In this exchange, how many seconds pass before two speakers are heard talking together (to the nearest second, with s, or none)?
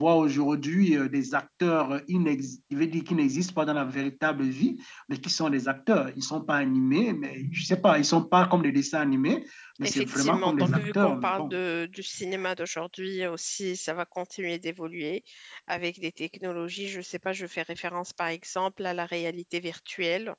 10 s